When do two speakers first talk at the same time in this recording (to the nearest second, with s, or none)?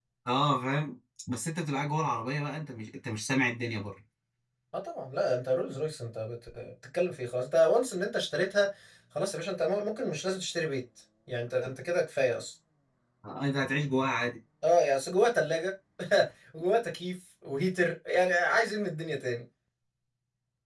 none